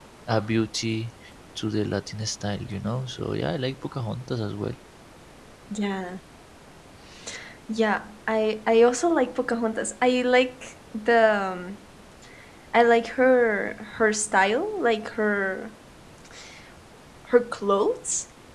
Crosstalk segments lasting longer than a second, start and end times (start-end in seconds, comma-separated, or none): none